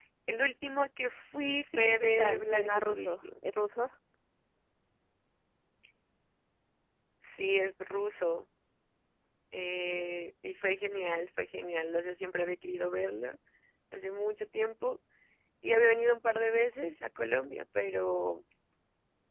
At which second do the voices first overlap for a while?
1.6 s

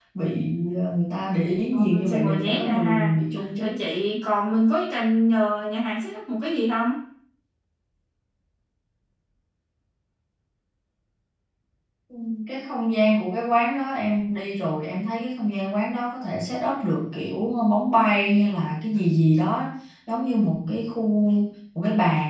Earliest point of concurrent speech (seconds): 1.7 s

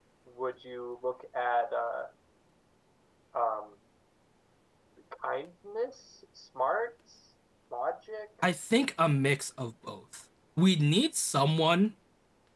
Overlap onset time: none

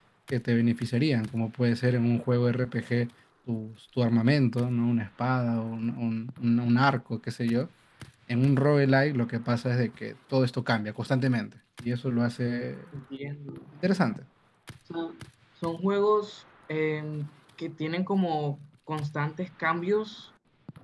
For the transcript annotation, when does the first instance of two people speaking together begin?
none

